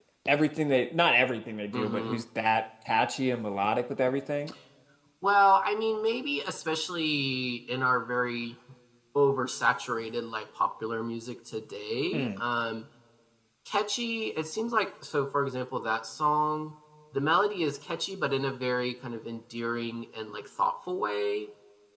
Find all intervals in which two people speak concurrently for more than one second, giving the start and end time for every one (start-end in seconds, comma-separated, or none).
none